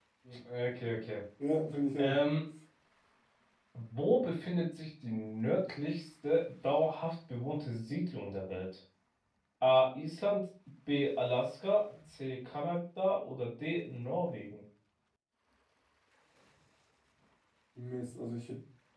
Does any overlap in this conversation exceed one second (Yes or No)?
No